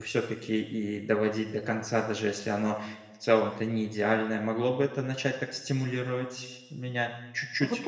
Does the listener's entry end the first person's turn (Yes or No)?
Yes